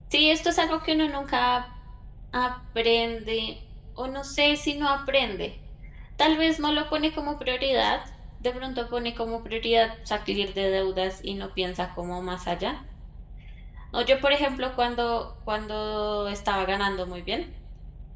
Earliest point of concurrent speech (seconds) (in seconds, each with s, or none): none